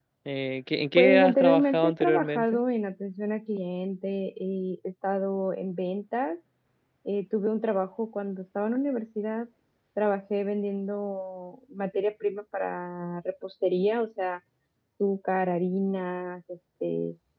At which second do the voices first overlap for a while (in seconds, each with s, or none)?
1.0 s